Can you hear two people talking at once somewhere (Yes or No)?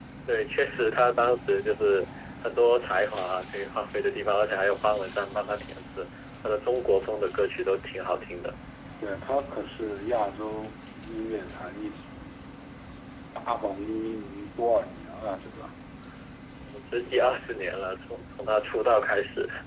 No